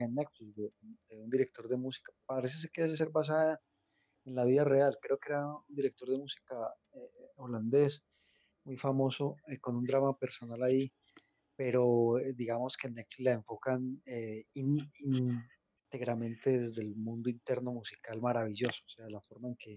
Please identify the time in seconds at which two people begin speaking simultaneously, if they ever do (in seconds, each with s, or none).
none